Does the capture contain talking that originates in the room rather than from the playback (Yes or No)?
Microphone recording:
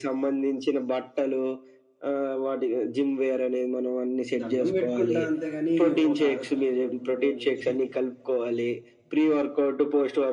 Yes